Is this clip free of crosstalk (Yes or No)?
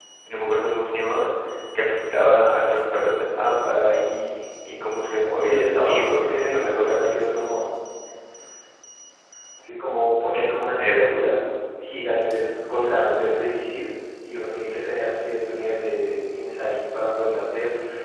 No